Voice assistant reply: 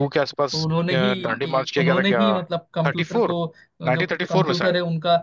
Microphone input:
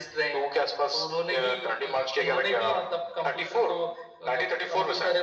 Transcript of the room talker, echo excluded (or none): none